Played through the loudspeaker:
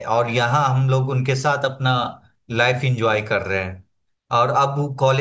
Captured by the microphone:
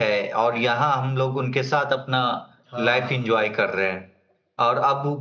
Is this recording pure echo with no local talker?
No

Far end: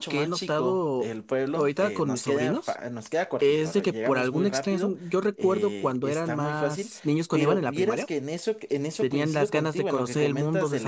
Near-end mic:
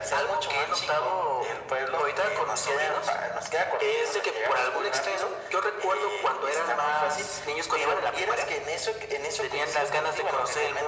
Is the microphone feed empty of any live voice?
Yes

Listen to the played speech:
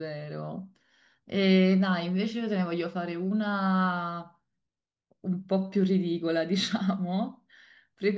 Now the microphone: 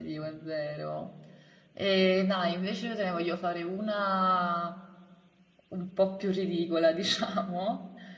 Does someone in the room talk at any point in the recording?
No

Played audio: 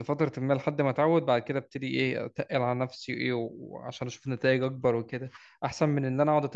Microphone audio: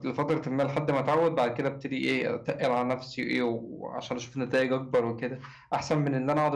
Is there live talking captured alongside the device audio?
No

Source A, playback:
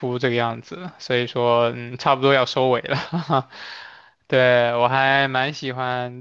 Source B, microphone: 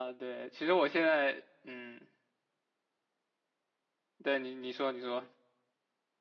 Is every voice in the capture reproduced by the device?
No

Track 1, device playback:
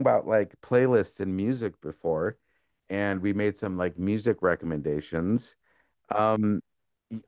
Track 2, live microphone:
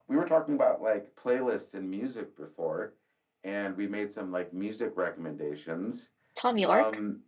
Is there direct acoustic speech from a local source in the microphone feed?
Yes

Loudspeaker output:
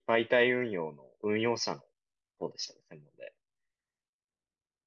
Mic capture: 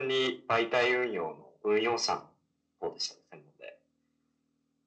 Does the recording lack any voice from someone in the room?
Yes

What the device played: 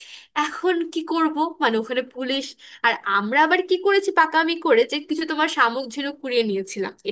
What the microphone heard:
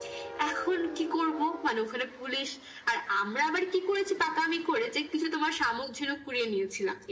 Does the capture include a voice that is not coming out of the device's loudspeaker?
No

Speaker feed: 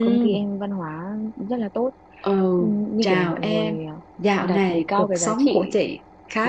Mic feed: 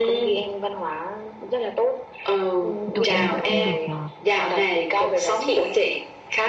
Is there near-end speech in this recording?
Yes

